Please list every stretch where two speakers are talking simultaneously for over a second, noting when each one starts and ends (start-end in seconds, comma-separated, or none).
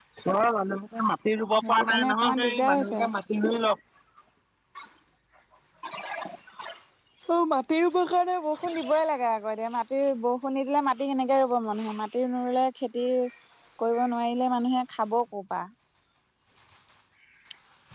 1.7-3.0